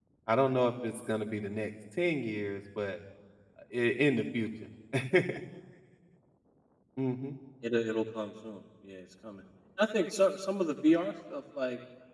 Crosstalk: none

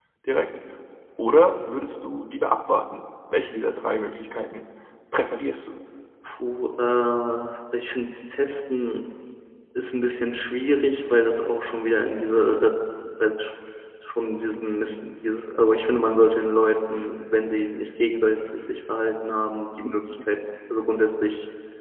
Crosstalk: none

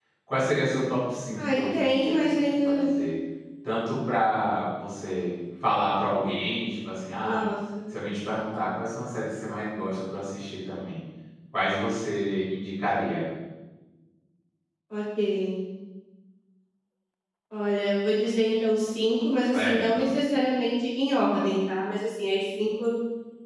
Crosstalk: present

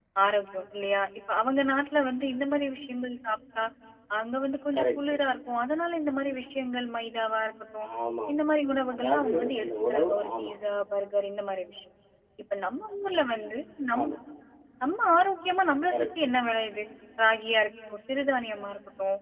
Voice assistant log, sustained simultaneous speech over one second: present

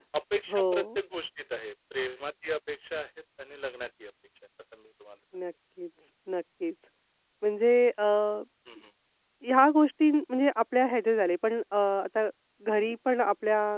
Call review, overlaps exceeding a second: none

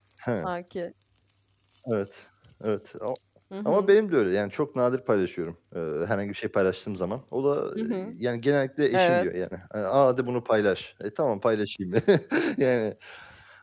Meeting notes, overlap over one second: none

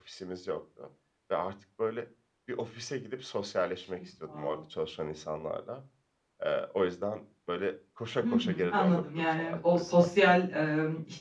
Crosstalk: present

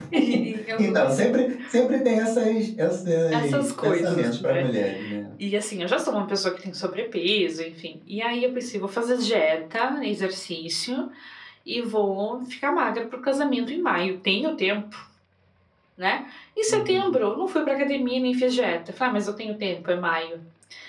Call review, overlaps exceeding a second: present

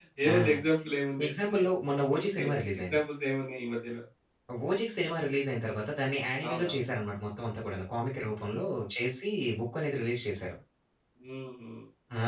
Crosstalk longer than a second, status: none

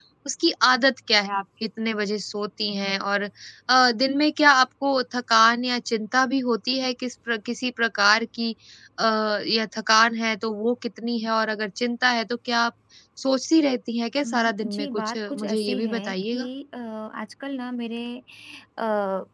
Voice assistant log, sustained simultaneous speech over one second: present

